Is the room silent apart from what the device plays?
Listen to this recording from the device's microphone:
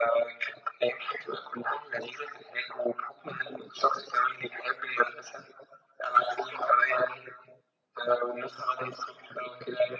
Yes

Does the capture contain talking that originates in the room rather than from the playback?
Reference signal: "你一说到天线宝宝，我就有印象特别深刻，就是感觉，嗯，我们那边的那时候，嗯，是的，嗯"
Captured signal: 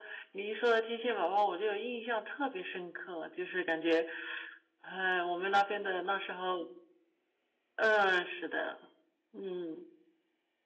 No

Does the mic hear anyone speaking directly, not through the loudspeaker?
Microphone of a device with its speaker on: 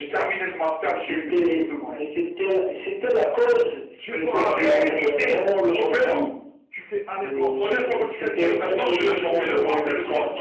Yes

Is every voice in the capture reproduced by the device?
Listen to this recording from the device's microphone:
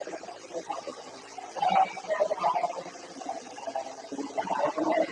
Yes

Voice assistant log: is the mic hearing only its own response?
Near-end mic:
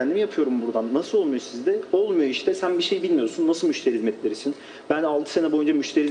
Yes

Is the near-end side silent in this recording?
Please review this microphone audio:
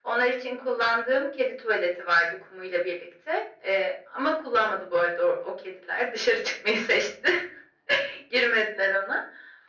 Yes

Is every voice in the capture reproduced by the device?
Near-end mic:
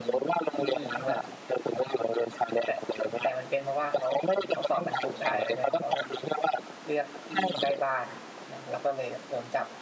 No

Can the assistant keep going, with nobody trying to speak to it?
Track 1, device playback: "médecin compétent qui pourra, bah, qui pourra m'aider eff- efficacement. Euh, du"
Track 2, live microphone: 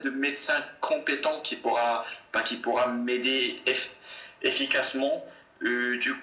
Yes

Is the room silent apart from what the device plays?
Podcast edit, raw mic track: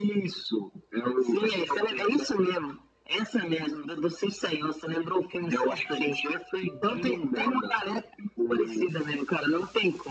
Yes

